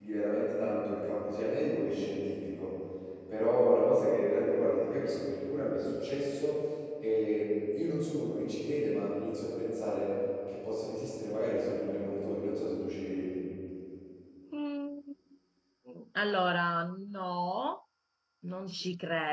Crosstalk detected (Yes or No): No